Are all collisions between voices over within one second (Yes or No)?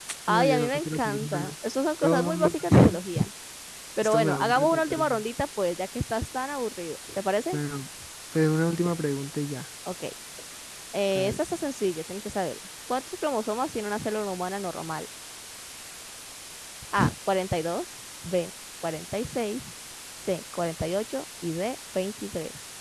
No